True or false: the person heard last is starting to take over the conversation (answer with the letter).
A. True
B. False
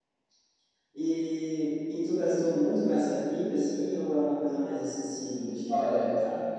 A